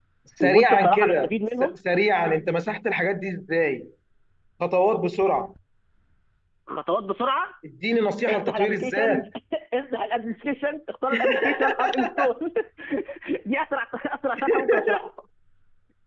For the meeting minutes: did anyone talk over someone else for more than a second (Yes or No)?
Yes